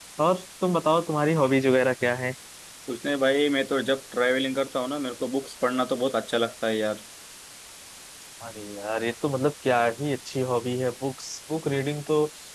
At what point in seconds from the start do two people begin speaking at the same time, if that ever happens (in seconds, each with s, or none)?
none